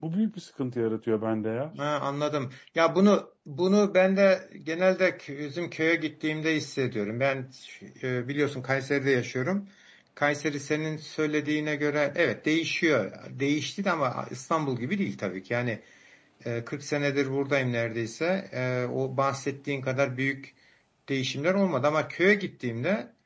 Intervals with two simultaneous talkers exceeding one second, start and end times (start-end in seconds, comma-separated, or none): none